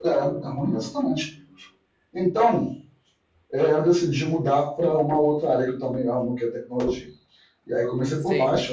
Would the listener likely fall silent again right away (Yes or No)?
Yes